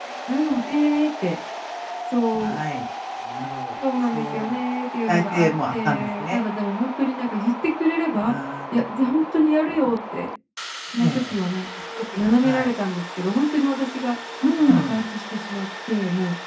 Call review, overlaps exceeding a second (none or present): present